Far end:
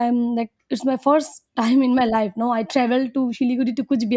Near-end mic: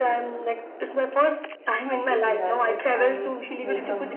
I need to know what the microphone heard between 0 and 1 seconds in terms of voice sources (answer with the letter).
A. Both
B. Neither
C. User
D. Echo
D